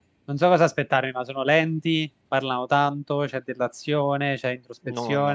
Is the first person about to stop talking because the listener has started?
Yes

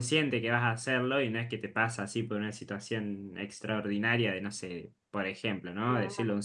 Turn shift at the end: No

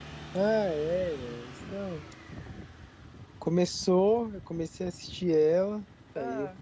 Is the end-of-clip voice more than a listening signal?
No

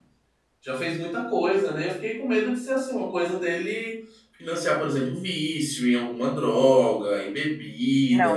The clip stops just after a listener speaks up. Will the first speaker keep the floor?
No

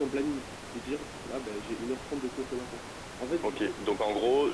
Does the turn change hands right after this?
Yes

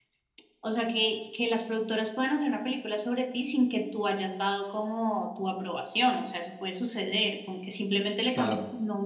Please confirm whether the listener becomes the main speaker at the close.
No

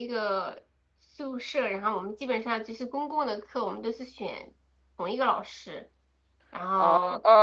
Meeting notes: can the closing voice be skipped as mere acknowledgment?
No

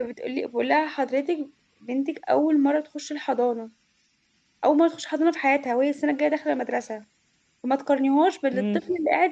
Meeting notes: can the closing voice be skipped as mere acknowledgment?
Yes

